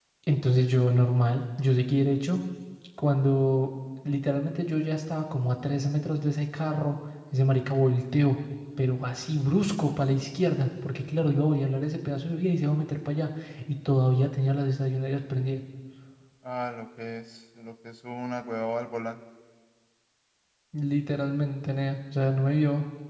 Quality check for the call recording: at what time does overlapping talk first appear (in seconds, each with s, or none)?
none